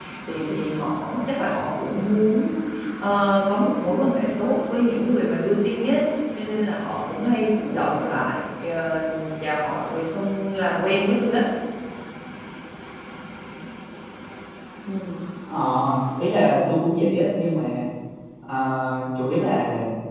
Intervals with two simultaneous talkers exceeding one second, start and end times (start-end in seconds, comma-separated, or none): none